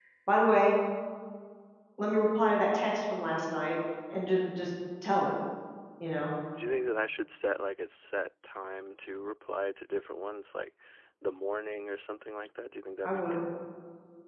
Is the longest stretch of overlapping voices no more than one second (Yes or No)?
Yes